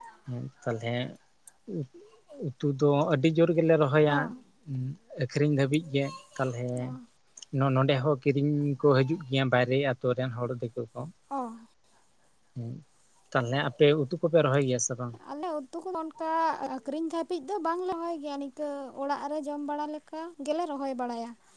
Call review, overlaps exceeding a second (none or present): none